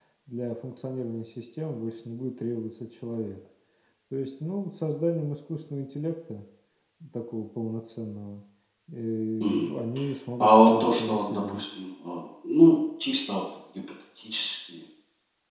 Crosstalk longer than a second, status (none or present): present